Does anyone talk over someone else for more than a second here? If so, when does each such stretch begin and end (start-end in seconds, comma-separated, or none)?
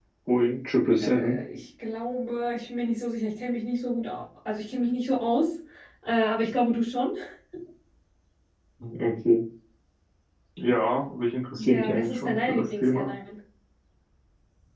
11.6-13.1